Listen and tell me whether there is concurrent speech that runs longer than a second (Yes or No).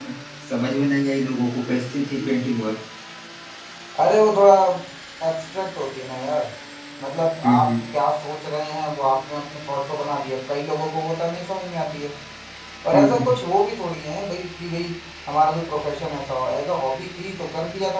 No